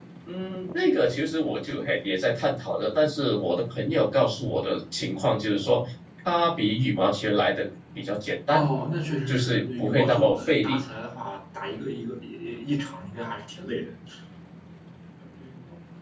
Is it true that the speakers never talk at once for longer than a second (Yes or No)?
No